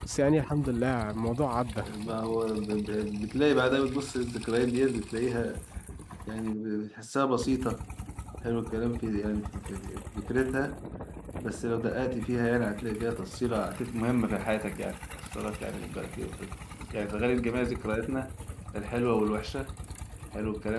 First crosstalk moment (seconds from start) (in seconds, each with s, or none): none